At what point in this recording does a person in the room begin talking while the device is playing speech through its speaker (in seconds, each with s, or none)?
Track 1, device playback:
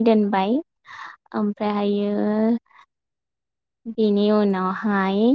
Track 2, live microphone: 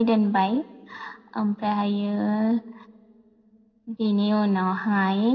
none